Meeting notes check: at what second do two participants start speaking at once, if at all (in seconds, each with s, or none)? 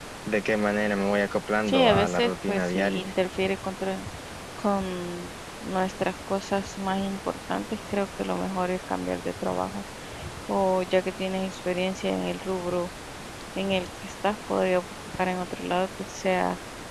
1.7 s